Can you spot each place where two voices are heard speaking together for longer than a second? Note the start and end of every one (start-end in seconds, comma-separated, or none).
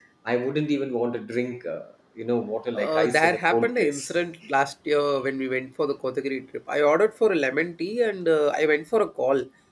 2.8-4.0